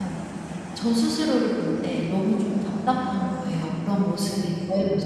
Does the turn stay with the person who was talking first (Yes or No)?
No